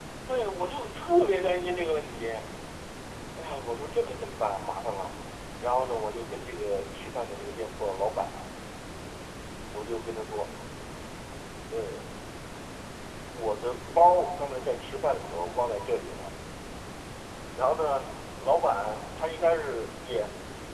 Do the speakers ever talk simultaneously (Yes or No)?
No